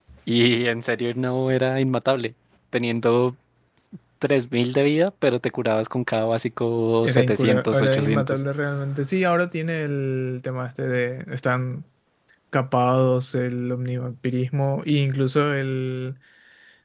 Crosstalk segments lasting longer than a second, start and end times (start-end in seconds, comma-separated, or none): 7.0-8.4